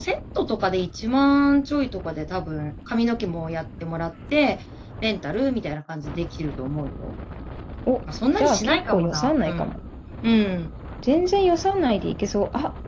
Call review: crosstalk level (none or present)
present